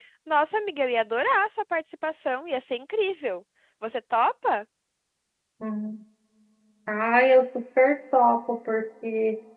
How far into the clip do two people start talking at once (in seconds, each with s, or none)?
none